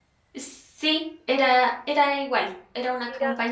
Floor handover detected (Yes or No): No